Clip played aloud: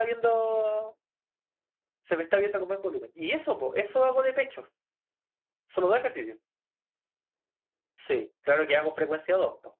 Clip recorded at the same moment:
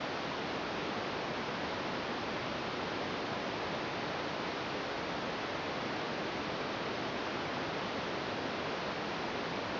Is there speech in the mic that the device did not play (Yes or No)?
No